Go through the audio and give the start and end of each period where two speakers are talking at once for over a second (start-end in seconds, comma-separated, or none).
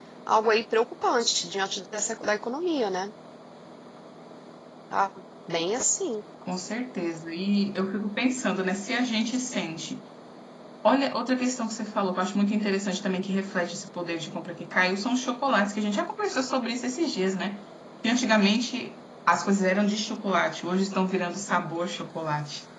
none